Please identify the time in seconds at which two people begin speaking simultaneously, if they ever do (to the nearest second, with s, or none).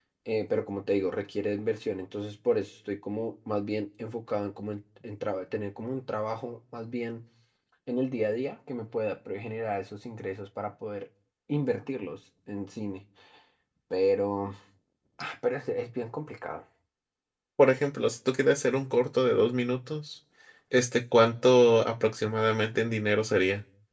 none